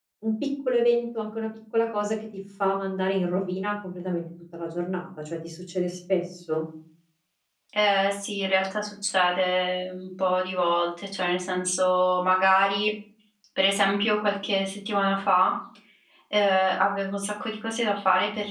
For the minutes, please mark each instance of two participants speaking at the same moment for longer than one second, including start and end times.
none

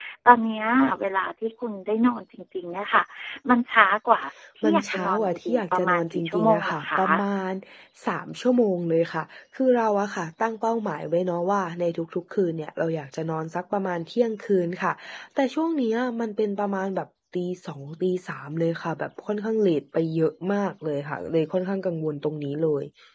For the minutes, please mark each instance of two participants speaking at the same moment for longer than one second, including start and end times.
4.7-7.0

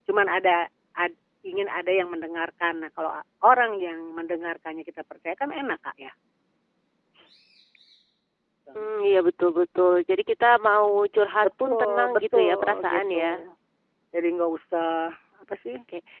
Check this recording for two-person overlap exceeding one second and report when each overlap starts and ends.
11.6-13.5

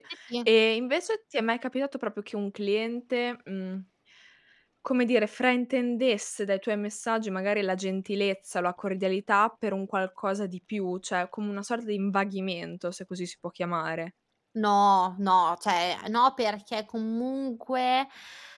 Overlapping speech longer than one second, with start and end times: none

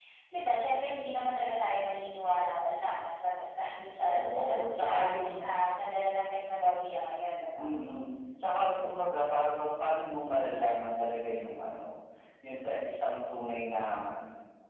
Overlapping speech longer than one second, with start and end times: 4.0-5.6

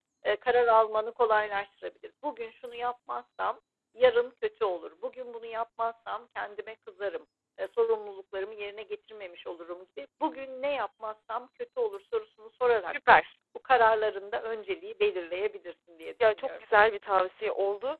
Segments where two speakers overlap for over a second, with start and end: none

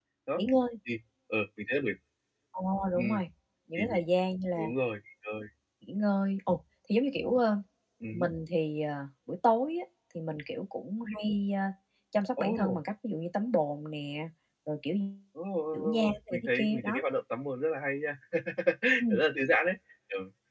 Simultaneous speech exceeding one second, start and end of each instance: 15.7-17.0

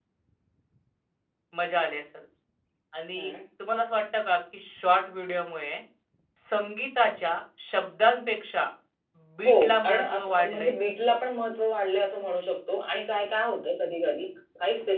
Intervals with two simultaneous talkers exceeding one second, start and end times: 9.4-10.7

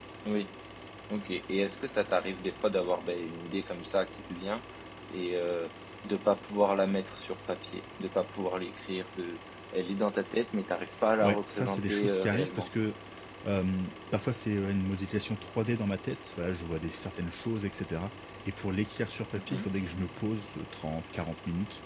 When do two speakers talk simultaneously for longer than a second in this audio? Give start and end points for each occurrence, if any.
11.2-12.7

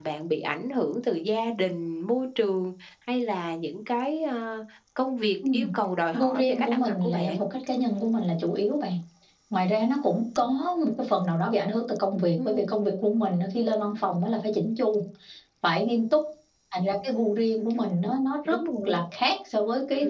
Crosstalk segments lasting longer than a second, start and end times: 6.1-7.5

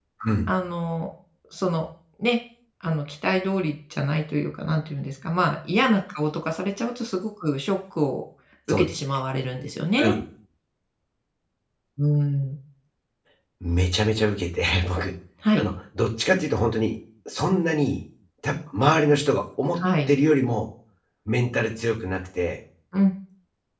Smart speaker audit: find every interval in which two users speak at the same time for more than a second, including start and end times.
none

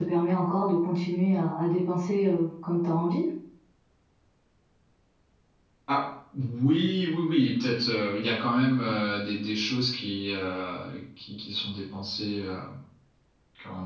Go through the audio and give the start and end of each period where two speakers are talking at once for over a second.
none

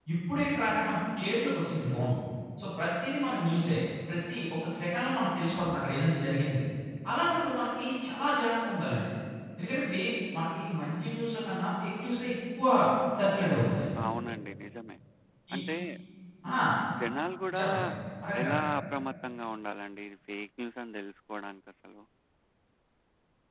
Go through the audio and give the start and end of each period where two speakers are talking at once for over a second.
none

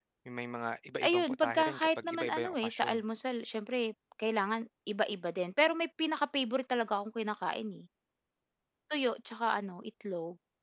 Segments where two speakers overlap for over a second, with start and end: 1.0-3.0

